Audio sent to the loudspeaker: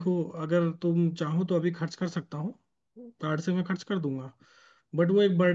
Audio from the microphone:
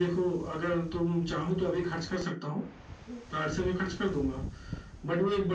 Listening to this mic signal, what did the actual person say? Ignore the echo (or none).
none